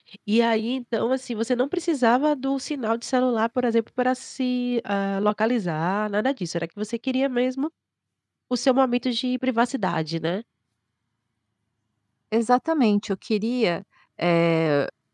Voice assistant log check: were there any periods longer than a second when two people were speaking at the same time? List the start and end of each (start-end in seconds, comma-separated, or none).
none